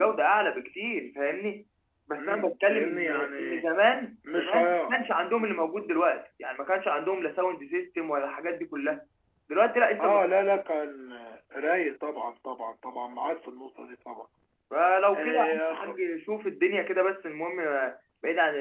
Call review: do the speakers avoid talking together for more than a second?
No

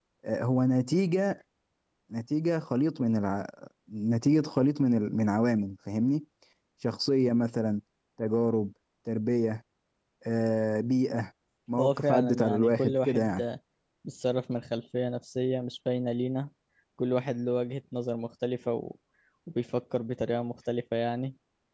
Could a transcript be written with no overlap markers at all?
No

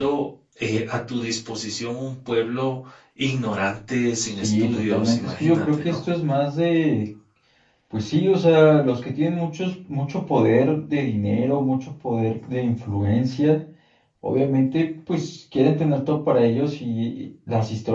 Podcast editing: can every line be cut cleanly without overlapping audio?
No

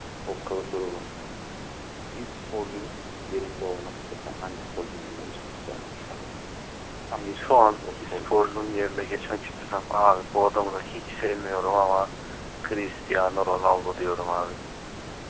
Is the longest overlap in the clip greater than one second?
Yes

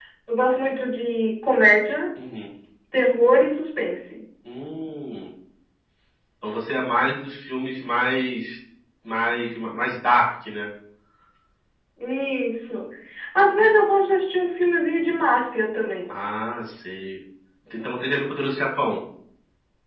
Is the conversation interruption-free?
Yes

